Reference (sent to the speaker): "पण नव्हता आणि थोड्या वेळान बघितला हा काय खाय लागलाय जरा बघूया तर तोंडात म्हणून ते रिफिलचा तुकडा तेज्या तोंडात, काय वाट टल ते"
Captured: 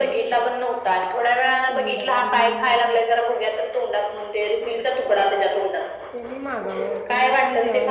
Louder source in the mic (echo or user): echo